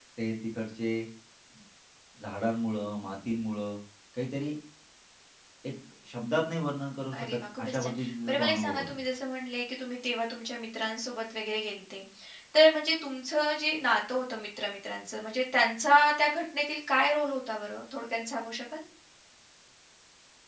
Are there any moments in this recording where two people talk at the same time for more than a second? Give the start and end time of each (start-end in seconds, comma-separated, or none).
7.2-9.0